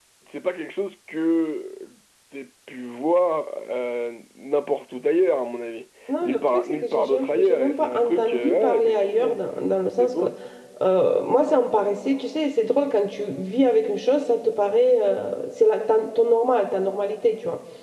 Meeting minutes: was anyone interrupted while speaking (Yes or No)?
Yes